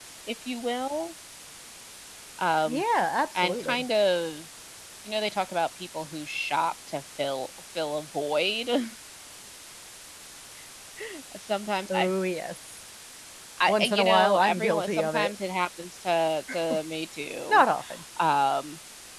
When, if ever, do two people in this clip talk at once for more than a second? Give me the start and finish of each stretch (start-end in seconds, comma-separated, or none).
13.7-15.3